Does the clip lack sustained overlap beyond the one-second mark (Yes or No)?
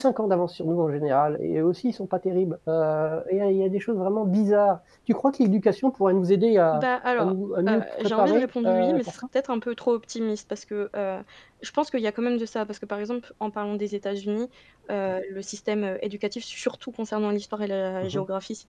No